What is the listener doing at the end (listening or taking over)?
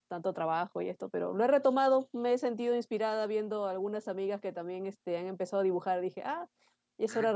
taking over